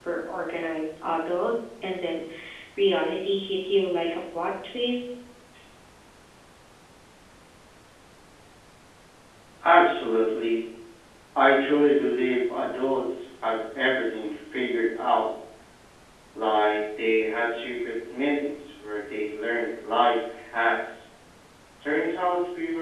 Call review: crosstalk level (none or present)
none